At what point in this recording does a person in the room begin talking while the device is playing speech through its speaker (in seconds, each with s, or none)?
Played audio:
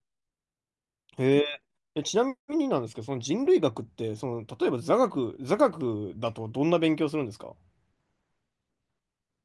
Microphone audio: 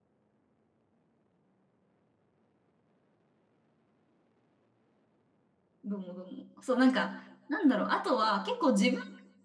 5.8 s